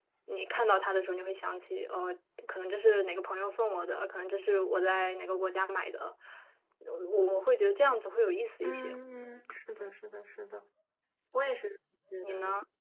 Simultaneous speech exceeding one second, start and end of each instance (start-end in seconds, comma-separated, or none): none